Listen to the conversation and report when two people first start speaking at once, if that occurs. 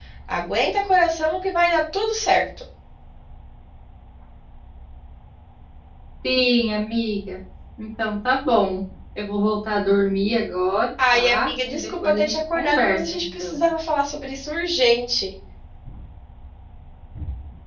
11.0 s

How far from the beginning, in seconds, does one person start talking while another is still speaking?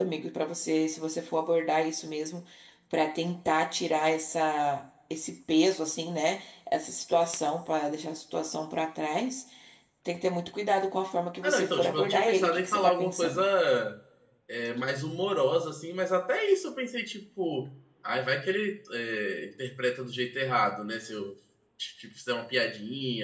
11.4 s

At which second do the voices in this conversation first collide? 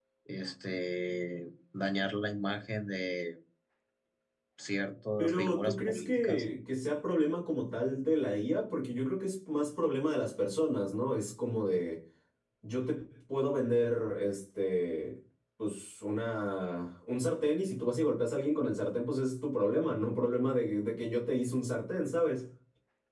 5.2 s

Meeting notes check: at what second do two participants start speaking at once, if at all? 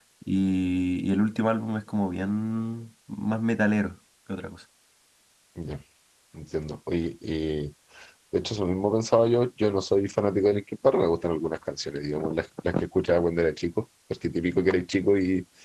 none

